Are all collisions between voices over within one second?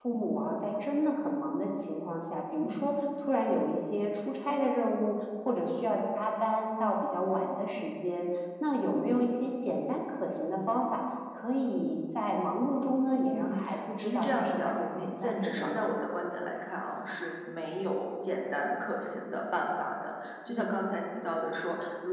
No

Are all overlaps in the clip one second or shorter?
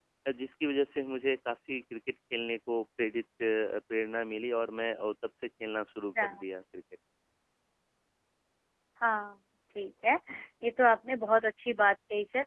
Yes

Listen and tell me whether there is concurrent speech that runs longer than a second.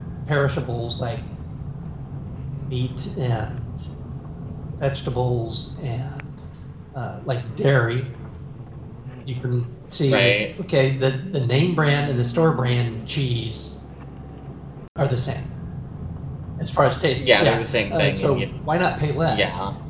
Yes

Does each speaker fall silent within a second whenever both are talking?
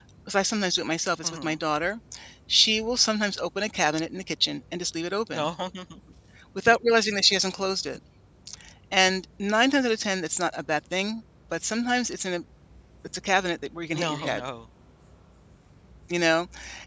Yes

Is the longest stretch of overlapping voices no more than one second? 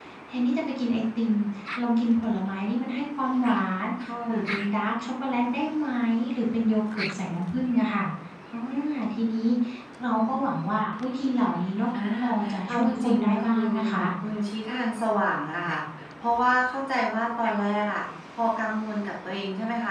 No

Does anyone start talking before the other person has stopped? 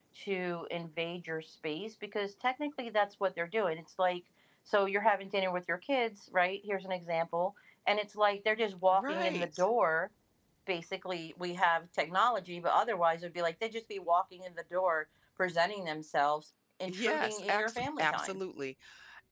Yes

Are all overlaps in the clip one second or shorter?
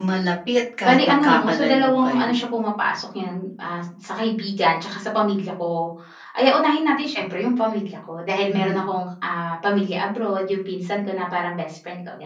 No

